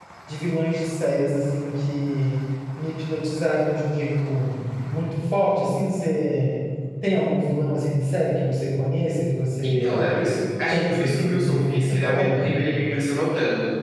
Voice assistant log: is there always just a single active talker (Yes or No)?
No